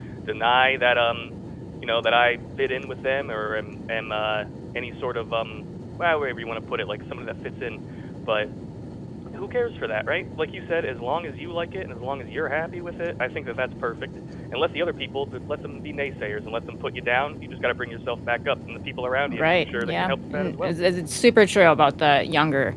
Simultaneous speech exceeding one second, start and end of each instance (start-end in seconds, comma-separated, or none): 19.3-20.7